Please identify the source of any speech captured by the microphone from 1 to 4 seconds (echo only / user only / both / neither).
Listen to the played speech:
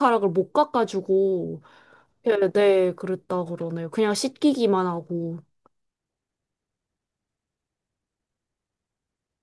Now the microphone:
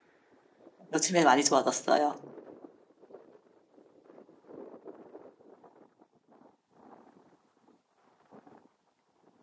user only